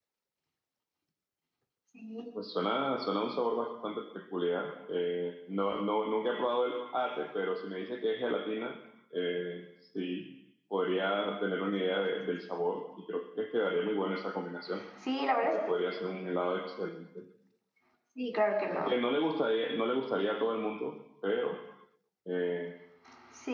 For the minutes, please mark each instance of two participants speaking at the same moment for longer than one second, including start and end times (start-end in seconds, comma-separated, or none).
none